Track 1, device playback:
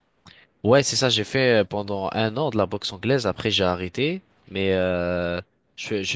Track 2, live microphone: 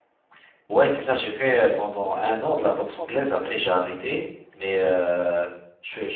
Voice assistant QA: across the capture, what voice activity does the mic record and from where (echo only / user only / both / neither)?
both